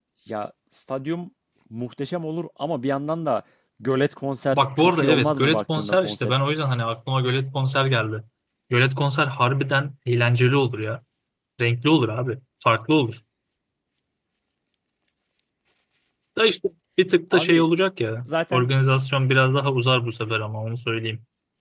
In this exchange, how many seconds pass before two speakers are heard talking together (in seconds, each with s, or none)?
4.5 s